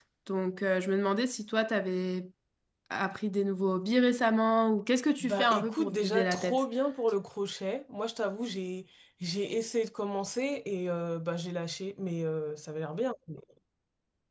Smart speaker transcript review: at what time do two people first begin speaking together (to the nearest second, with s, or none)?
5 s